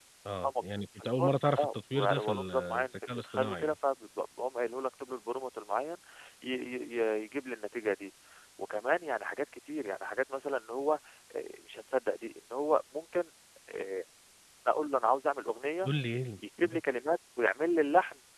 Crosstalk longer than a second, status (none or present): present